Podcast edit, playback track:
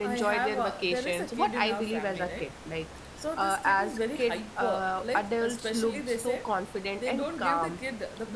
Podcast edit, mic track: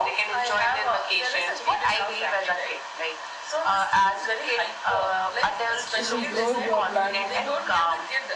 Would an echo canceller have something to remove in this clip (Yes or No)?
Yes